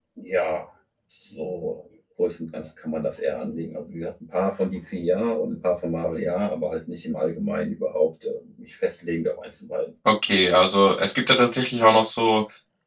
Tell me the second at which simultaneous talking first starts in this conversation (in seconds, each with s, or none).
none